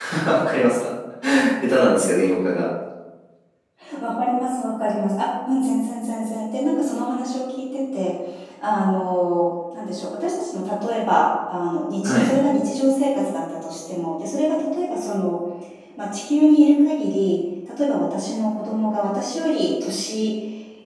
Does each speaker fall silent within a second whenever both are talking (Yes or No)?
Yes